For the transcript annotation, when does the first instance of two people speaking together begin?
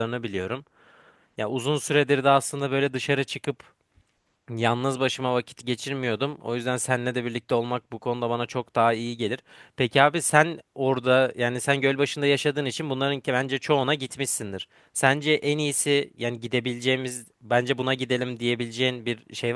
none

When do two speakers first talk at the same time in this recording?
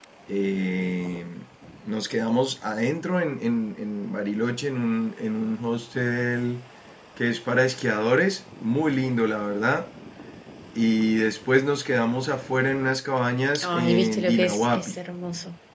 13.6 s

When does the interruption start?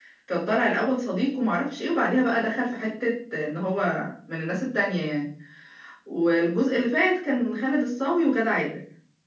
none

